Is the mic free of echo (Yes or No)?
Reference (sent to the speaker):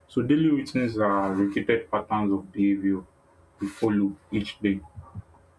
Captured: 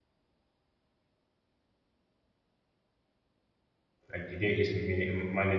Yes